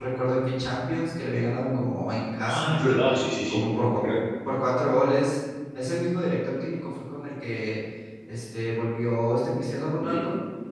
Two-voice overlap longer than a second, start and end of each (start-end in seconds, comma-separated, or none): none